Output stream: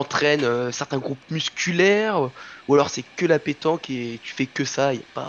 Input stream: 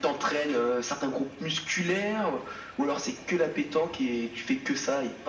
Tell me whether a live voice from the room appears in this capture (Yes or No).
No